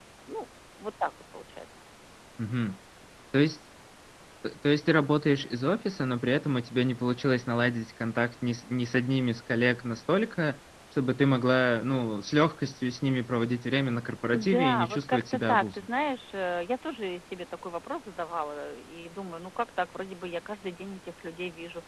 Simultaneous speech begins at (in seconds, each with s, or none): 14.3 s